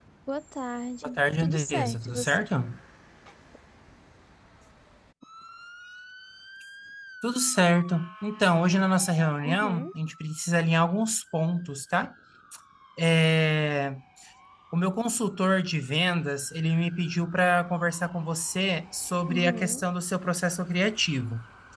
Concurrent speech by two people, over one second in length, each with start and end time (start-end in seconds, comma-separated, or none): 1.0-2.4